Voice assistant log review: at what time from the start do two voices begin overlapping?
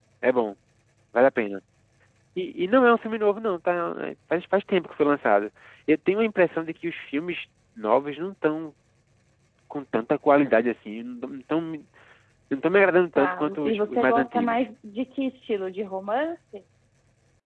13.1 s

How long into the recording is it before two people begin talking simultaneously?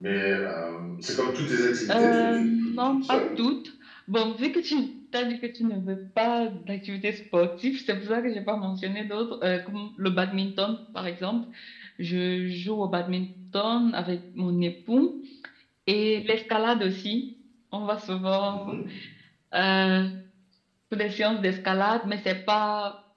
1.9 s

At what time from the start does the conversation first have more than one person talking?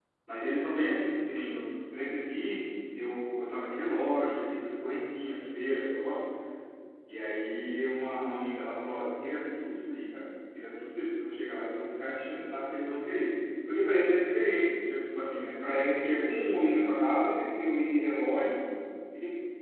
none

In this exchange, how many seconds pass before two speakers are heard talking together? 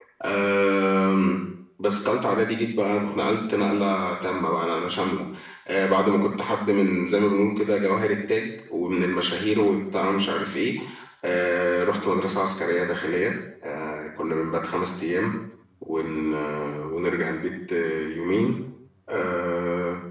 none

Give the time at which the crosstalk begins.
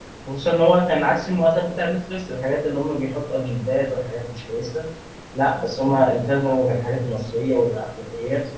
none

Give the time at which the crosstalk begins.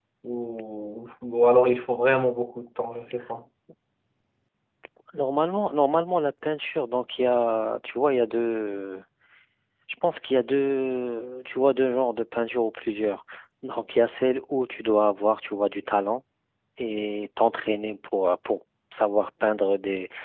none

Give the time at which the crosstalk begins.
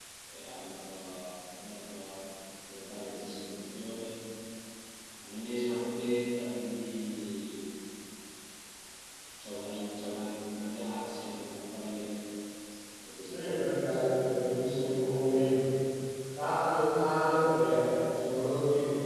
13.3 s

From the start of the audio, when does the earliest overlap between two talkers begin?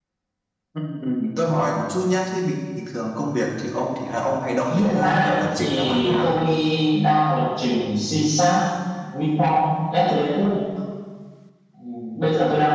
4.7 s

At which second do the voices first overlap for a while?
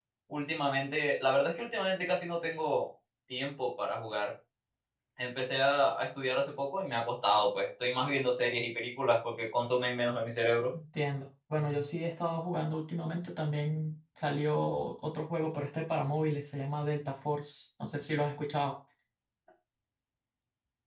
none

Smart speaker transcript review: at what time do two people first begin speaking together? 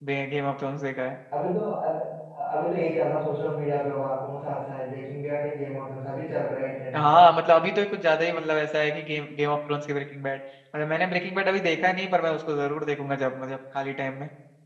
none

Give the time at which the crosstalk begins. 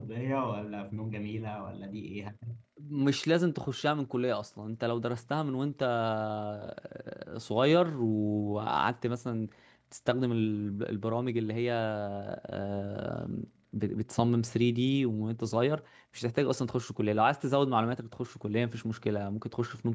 none

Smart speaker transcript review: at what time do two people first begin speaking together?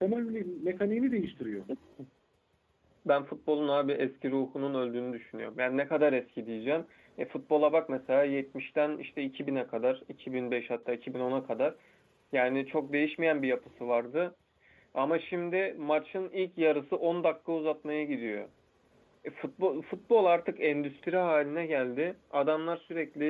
none

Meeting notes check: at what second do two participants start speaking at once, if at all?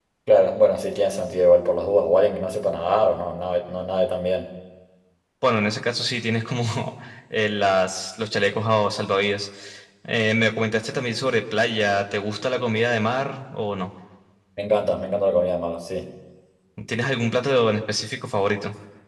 none

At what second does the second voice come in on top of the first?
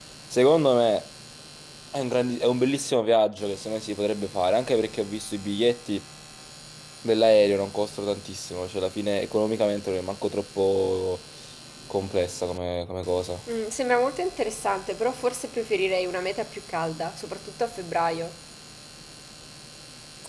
none

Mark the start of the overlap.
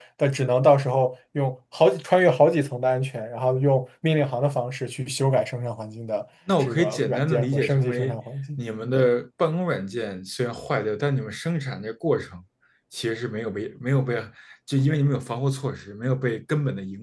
6.6 s

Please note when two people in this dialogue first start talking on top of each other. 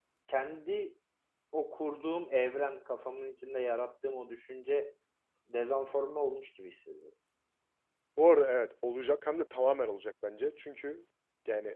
none

